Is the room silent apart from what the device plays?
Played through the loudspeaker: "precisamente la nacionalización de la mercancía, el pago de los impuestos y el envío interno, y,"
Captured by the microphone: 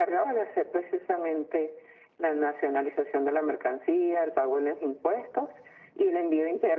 Yes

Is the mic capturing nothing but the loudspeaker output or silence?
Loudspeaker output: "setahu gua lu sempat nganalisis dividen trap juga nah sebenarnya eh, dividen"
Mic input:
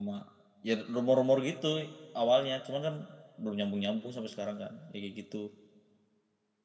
No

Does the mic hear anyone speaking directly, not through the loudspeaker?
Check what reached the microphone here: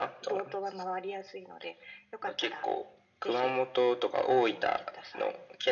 No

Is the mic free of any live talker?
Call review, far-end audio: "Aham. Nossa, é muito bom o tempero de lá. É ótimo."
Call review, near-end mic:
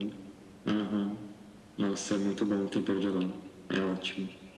Yes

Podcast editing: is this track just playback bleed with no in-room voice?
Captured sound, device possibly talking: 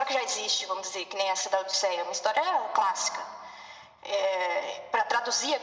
Yes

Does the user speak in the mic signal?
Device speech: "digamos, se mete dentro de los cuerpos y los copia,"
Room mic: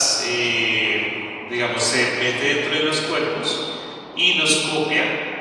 No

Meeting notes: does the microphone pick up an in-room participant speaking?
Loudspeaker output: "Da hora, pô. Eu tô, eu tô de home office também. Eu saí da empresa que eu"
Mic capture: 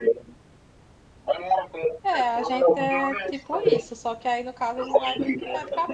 Yes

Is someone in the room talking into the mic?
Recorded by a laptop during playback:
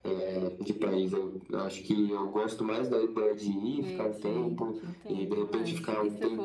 Yes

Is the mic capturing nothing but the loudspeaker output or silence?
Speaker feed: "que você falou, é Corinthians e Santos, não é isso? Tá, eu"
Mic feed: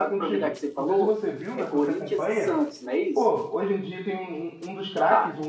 No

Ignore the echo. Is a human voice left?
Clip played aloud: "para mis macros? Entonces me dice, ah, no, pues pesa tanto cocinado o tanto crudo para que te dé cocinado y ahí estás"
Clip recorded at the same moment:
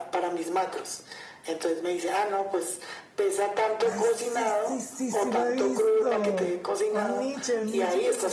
Yes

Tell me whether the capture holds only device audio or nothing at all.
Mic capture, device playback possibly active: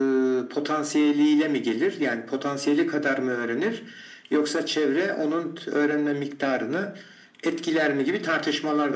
Yes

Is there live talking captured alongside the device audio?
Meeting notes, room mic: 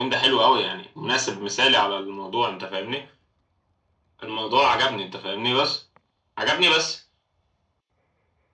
No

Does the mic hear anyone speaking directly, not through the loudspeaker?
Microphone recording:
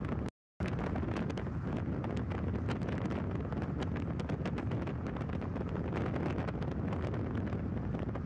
No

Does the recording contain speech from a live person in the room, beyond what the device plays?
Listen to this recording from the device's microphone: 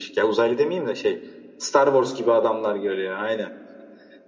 No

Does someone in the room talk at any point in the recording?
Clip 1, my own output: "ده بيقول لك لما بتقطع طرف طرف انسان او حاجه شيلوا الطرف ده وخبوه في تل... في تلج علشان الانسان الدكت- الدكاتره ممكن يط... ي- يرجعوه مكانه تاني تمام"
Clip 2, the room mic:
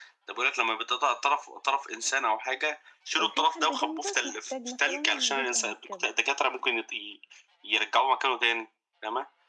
Yes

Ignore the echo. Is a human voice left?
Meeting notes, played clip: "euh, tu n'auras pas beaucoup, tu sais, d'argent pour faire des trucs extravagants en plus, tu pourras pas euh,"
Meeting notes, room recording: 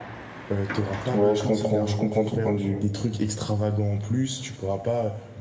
Yes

